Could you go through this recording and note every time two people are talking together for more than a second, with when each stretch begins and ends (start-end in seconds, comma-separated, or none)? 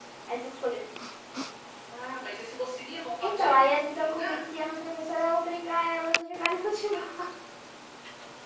3.2-4.4